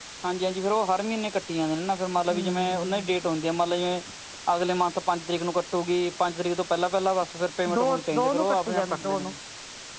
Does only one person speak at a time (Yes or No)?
No